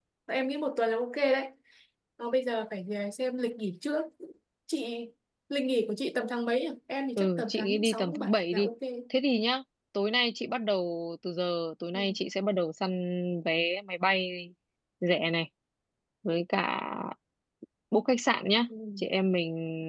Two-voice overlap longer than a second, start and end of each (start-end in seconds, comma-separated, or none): 7.2-8.7